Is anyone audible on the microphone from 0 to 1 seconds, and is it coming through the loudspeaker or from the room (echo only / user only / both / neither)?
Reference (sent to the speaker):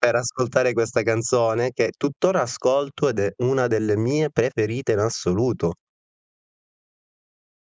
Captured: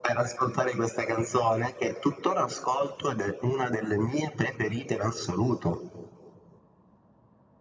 echo only